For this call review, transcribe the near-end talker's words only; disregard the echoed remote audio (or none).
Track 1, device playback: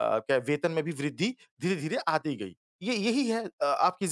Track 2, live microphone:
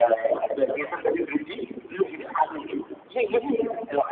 none